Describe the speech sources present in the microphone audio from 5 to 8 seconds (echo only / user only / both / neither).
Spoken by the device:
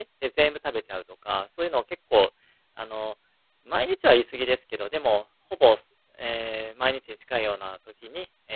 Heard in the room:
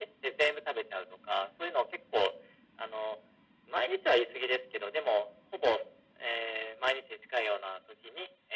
echo only